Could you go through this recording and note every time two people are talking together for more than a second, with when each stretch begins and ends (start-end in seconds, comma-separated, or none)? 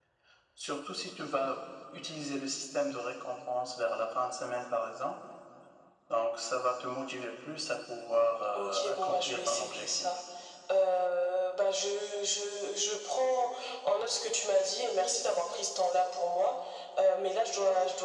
8.6-10.1